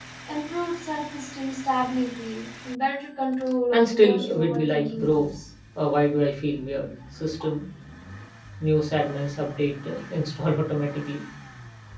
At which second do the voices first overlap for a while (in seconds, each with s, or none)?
3.7 s